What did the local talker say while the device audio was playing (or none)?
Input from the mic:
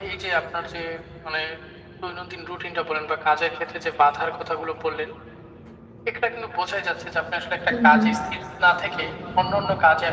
হুম, হুম।